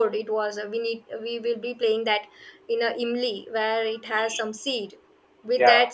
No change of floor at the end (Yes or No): Yes